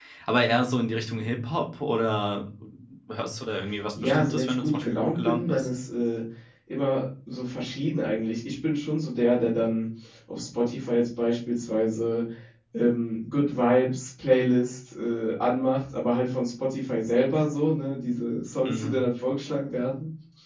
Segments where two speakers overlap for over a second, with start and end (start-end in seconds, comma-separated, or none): 4.0-5.7